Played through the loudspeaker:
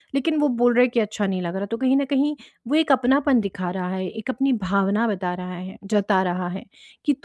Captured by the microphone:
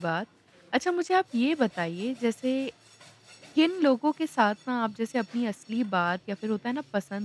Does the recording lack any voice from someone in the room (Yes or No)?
No